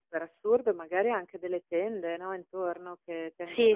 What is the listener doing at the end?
listening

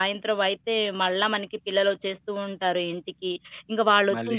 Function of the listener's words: listening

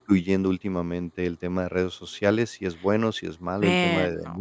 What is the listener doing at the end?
listening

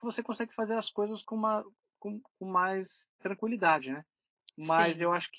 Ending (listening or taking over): listening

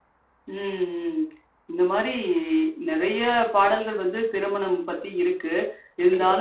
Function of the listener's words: listening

